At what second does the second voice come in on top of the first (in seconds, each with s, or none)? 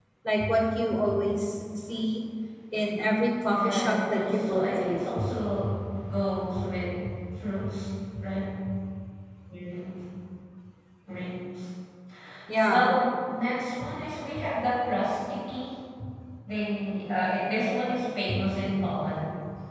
3.5 s